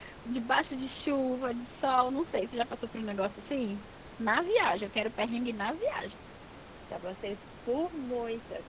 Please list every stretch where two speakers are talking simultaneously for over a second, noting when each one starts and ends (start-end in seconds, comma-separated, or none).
none